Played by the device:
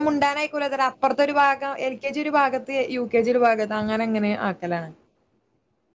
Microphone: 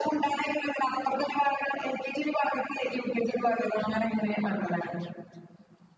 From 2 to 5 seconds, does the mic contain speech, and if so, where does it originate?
echo only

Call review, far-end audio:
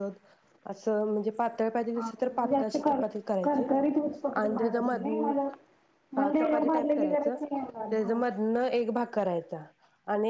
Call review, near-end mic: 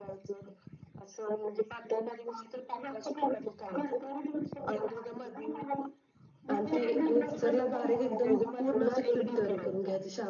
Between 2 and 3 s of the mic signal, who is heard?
echo only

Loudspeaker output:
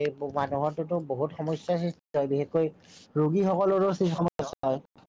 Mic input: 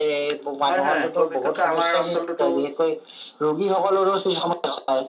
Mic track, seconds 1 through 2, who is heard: both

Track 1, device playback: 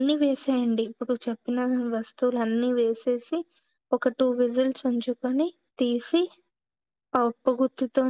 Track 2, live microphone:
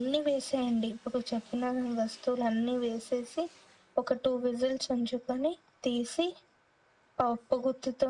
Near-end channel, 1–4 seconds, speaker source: echo only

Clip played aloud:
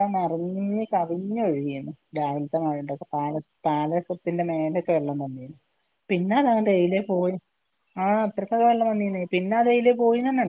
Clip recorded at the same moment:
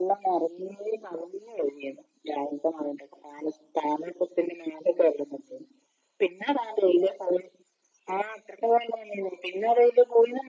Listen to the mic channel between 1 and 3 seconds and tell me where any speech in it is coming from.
echo only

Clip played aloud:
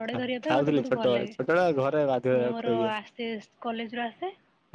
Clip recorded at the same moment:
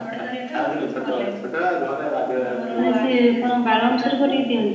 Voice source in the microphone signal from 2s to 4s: both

